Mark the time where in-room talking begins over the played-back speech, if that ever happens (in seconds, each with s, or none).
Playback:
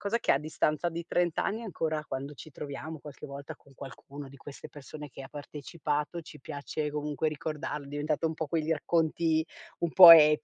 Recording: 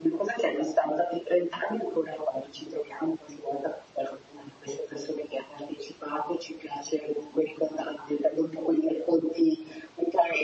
none